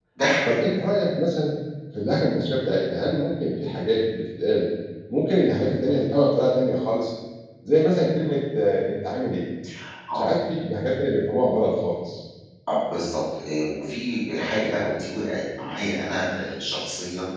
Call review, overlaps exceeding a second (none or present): none